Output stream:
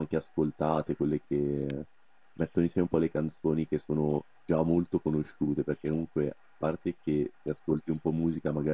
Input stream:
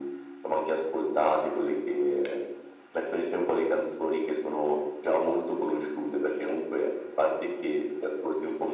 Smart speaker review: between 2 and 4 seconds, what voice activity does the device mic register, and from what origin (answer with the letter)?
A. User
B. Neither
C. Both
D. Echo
D